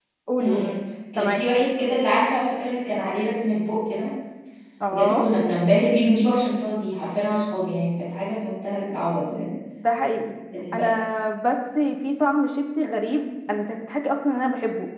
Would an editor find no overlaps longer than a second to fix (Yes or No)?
Yes